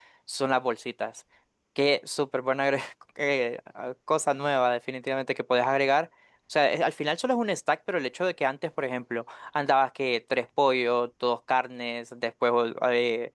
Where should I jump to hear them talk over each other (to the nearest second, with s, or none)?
none